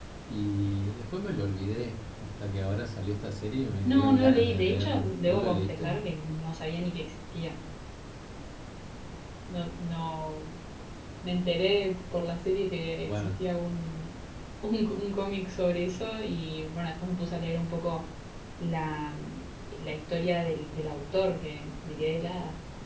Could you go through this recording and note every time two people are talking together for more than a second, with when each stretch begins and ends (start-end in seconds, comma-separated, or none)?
3.8-5.9